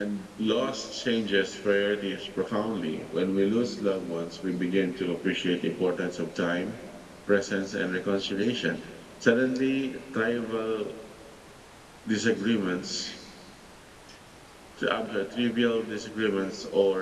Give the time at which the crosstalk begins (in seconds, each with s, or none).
none